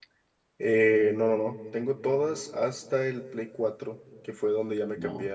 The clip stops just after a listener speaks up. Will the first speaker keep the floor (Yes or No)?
Yes